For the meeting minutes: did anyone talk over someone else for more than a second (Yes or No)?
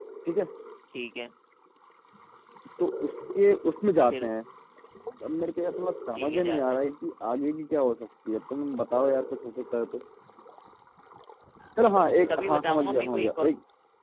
Yes